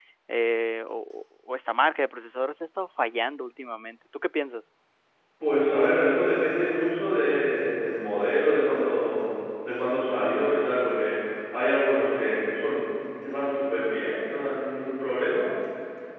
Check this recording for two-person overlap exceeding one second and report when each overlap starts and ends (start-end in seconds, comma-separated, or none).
none